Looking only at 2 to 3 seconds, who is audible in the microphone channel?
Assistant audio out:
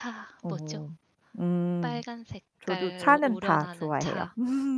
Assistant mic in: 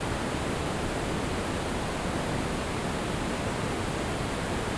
neither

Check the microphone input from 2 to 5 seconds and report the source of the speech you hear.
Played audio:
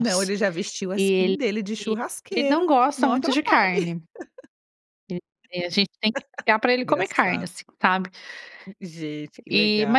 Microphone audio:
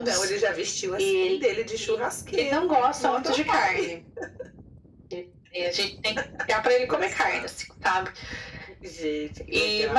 echo only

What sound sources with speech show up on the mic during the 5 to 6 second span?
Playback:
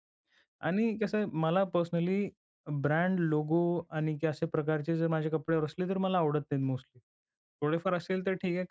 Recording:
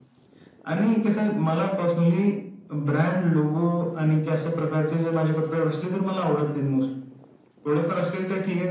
echo only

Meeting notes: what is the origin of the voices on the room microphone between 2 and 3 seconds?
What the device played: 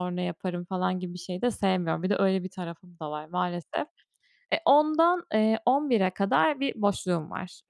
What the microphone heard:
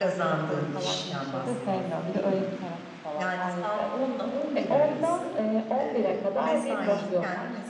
both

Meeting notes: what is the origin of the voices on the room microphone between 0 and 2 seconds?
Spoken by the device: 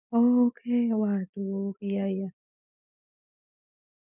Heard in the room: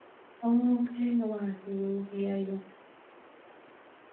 echo only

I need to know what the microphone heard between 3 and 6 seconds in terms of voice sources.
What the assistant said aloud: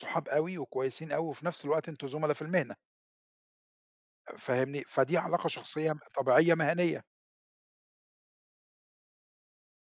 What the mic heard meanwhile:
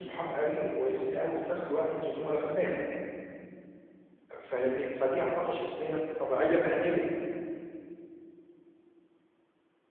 echo only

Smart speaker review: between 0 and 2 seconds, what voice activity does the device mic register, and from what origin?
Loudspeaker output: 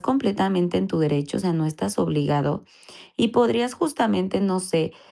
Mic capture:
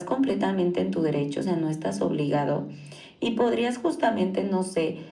echo only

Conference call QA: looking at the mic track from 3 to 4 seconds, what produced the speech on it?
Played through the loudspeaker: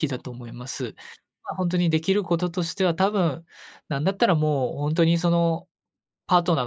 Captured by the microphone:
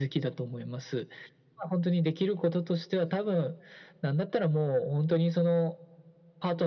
echo only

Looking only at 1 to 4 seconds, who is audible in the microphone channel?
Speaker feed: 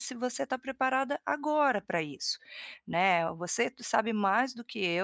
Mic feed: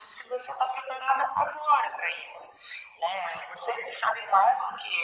echo only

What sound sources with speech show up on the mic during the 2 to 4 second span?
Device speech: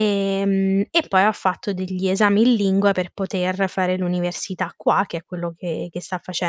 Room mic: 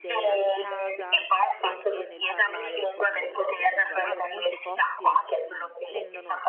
both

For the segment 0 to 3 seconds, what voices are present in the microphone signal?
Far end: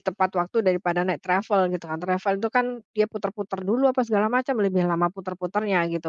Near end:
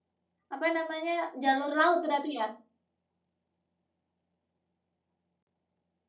user only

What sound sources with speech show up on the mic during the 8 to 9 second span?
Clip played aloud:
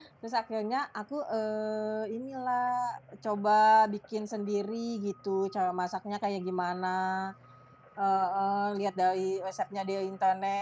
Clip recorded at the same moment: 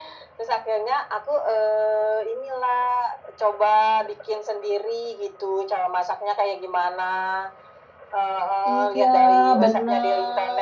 both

